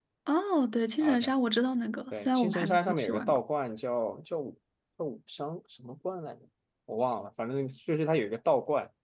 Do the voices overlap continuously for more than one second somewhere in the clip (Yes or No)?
Yes